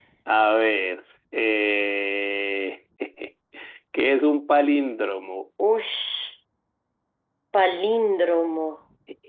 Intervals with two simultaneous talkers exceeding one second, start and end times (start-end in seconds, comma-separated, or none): none